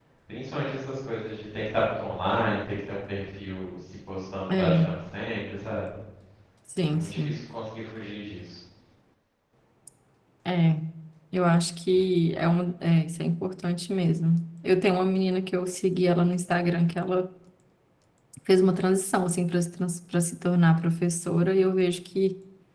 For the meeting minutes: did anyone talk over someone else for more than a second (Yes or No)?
No